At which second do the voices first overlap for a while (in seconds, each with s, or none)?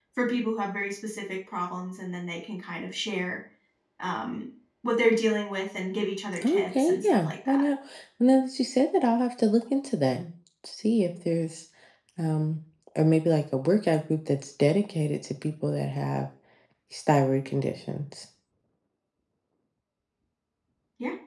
6.4 s